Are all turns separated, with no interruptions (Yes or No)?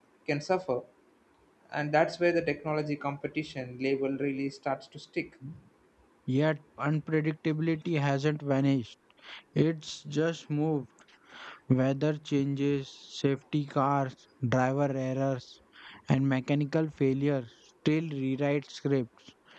Yes